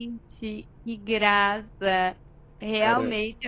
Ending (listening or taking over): listening